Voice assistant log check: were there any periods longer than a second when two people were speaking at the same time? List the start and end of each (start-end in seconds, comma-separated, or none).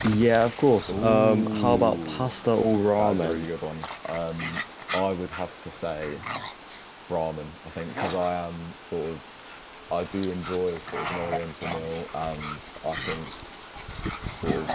0.9-2.3